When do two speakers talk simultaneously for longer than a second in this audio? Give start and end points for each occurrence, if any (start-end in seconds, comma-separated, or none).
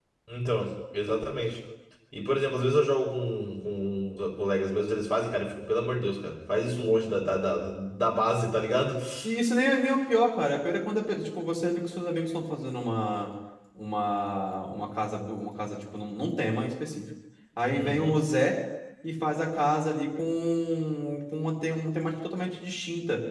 none